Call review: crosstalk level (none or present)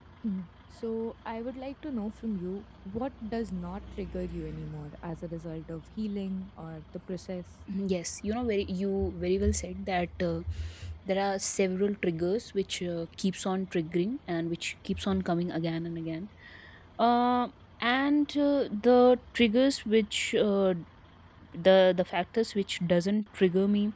none